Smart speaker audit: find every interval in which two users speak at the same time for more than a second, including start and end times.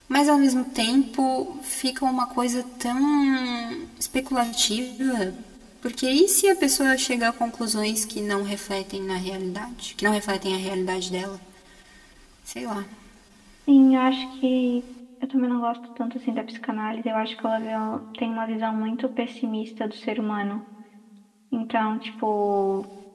none

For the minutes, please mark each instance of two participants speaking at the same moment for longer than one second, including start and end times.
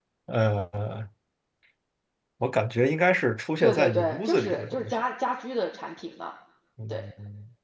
3.6-5.0

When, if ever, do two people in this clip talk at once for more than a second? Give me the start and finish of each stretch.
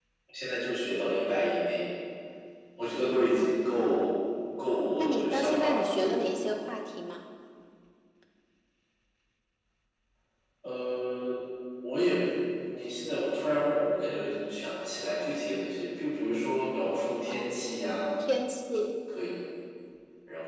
5.0-6.4

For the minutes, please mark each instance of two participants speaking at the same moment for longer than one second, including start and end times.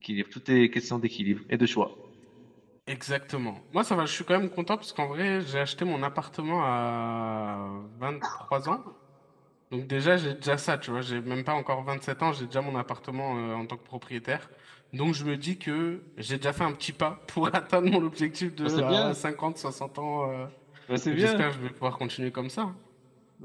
none

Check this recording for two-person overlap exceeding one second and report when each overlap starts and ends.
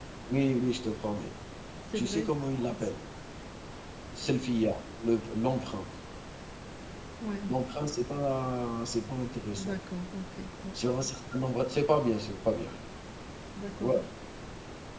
none

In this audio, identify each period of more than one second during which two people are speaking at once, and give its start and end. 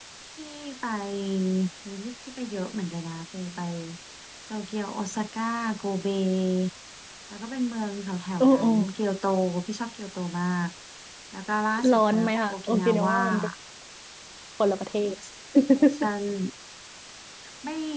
11.9-13.2

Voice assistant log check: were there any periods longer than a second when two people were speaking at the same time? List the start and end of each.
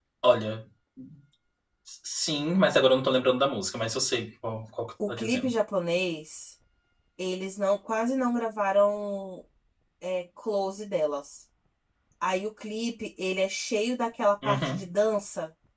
none

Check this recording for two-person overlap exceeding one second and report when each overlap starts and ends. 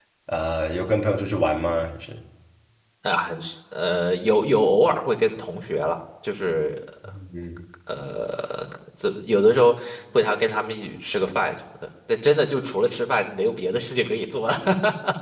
none

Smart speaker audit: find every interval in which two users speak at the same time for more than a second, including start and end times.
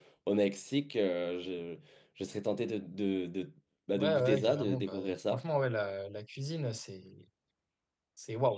4.0-5.4

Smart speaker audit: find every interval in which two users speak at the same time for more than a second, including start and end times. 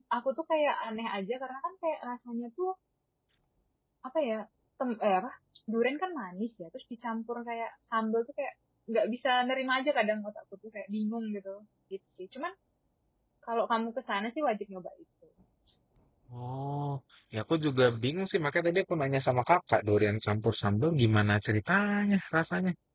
none

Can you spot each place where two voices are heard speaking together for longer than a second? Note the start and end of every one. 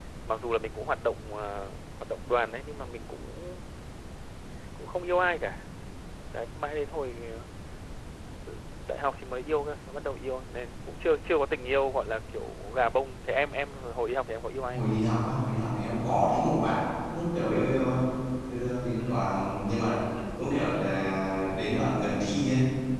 none

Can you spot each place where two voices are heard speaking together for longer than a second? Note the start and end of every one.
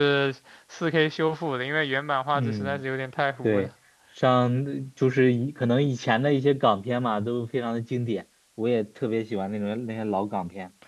none

